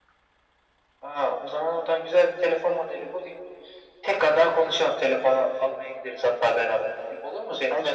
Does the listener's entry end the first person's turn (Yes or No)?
Yes